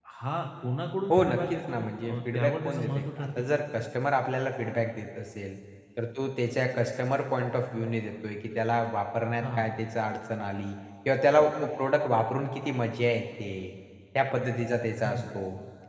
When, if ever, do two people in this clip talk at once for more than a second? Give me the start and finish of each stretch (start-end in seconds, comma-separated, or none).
1.1-3.6